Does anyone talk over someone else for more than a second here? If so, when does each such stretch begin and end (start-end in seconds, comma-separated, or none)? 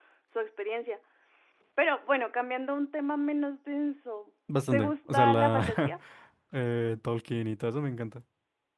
4.7-6.0